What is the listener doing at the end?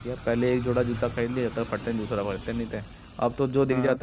listening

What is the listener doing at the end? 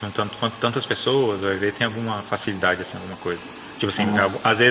listening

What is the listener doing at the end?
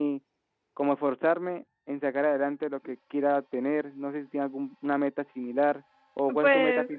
taking over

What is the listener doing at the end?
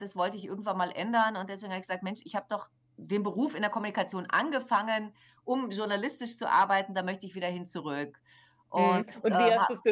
taking over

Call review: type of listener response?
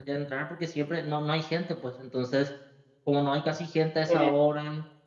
listening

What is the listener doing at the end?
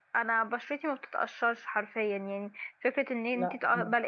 listening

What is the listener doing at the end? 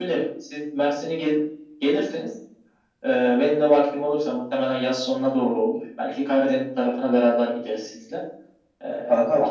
listening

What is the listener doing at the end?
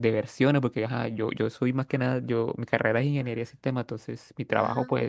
listening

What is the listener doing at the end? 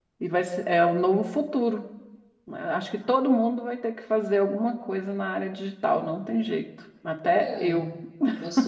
taking over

